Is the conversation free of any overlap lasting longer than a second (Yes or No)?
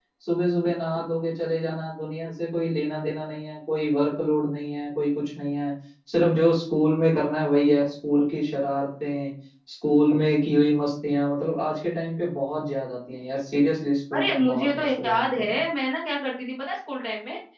No